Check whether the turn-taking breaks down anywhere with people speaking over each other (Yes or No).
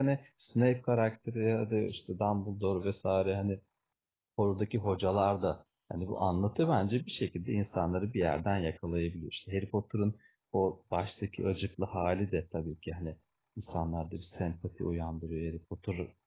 No